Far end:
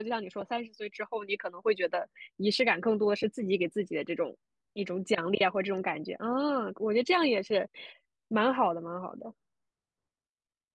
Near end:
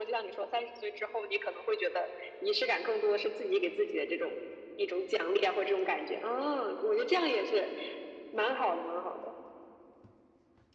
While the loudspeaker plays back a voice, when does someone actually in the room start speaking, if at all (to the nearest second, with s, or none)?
none